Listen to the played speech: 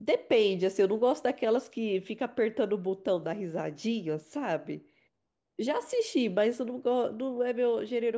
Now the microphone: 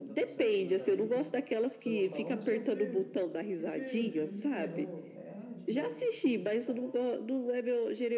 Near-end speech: present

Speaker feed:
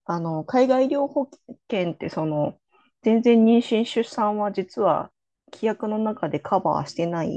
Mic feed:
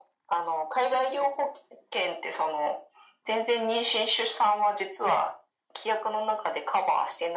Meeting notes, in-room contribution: none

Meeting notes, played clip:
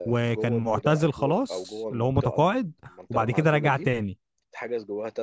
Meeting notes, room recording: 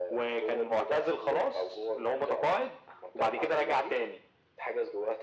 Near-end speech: none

